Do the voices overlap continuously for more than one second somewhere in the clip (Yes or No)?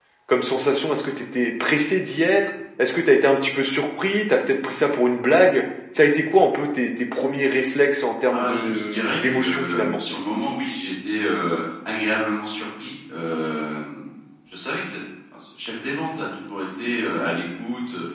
Yes